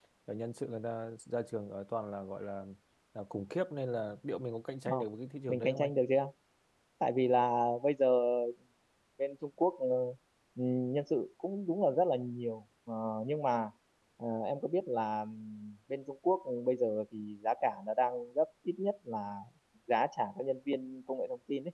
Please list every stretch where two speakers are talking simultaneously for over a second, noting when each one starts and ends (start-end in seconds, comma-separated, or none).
none